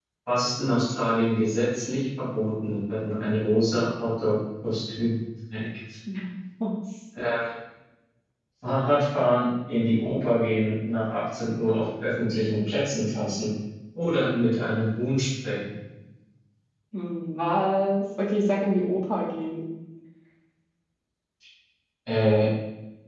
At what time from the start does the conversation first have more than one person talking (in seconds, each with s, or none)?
none